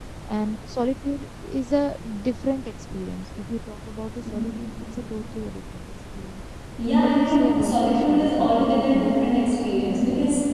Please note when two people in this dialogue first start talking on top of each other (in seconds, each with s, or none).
7.0 s